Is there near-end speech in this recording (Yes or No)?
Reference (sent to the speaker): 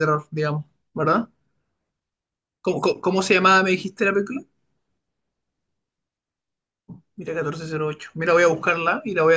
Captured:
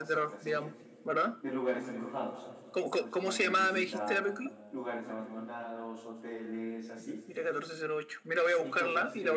Yes